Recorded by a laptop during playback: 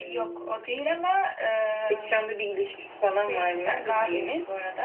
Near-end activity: none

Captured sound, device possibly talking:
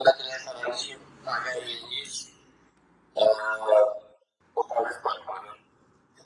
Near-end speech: none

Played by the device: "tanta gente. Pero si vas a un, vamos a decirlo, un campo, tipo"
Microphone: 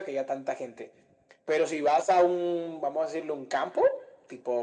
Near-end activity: none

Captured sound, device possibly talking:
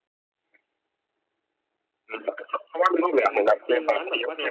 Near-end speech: present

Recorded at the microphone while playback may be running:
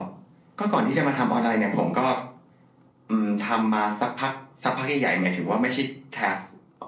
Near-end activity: none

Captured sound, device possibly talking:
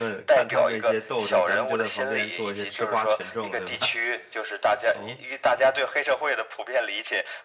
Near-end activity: present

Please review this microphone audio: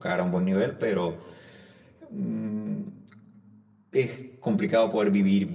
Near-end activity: present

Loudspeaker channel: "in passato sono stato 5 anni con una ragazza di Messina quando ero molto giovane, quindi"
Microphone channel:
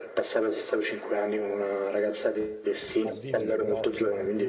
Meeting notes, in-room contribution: present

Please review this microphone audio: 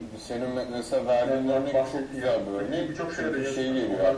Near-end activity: none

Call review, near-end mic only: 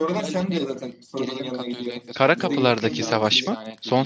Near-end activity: present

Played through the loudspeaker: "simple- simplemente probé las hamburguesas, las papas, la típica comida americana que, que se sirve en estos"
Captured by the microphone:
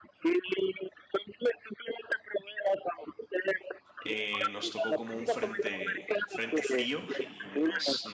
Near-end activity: present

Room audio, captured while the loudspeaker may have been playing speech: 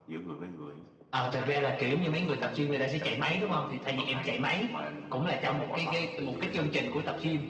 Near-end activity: present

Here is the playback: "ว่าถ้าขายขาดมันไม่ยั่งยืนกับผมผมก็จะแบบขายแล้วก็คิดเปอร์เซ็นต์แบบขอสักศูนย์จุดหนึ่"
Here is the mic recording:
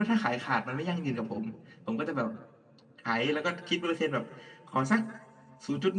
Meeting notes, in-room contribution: none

